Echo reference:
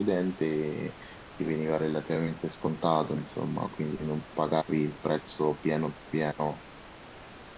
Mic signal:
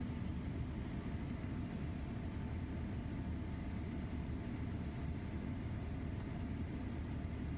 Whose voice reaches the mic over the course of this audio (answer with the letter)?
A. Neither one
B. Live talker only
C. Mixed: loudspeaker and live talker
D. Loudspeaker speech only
A